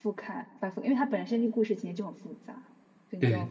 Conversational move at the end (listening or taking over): listening